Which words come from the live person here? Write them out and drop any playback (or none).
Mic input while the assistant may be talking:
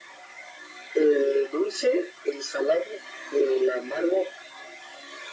none